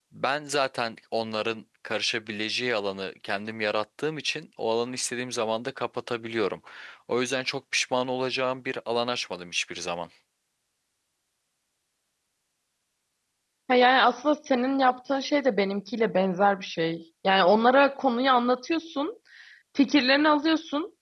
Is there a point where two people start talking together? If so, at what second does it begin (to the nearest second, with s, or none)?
none